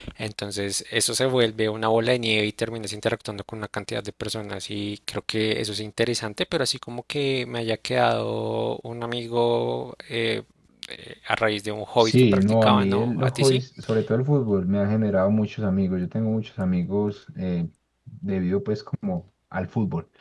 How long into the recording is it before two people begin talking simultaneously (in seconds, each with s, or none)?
12.0 s